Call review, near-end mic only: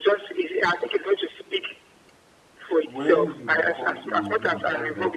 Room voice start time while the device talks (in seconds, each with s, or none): 2.9 s